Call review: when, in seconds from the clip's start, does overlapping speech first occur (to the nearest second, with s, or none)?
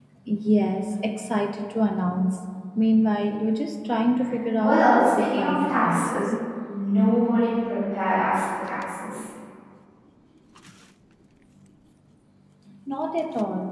5 s